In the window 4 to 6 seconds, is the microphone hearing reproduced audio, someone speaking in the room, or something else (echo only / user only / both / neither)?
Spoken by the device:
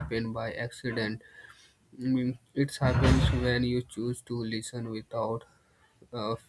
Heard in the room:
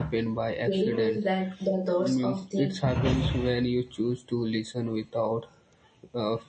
echo only